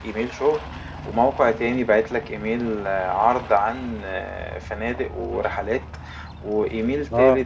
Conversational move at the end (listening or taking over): listening